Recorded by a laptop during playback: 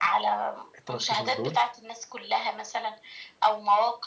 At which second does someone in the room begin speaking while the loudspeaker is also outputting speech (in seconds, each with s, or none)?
0.8 s